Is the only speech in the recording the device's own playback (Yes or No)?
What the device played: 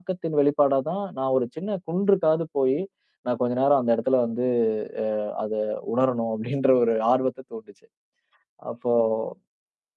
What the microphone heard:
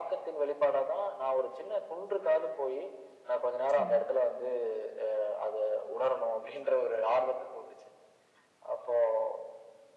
No